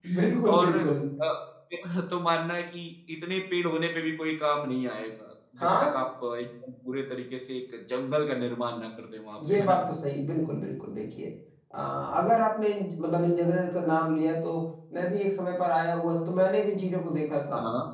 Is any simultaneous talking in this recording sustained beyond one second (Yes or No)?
No